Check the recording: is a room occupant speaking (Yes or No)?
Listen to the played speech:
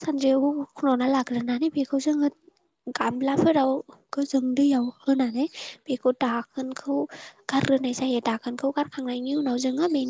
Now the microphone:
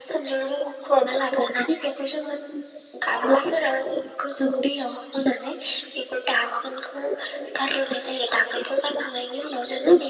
No